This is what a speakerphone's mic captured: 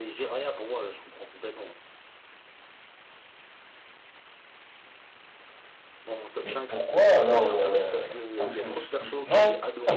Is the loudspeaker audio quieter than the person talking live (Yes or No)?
Yes